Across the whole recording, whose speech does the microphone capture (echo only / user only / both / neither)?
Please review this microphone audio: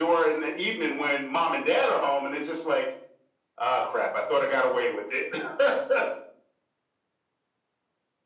echo only